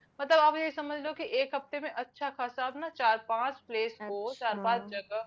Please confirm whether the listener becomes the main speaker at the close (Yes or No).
No